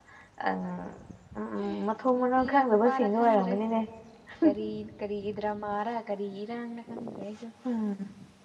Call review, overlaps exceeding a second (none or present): present